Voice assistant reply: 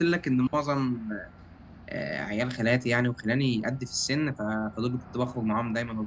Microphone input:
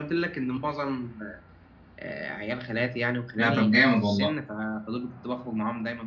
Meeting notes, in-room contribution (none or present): present